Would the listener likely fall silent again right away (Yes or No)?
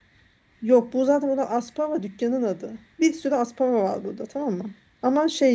Yes